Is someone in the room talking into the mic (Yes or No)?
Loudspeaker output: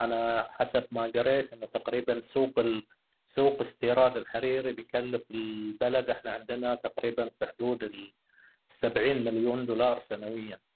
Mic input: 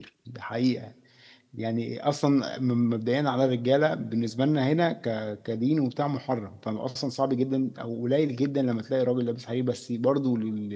Yes